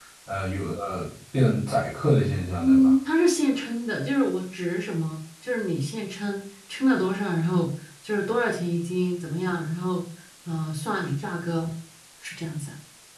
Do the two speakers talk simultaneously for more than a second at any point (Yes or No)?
No